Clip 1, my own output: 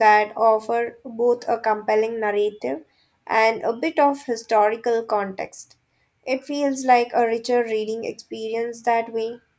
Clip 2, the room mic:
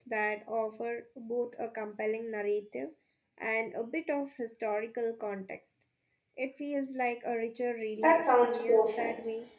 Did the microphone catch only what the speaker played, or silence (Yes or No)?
No